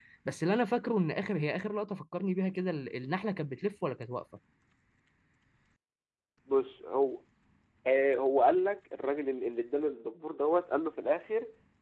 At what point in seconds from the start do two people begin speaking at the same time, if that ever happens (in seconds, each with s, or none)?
none